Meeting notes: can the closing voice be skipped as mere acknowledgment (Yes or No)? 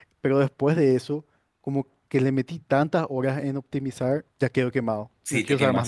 No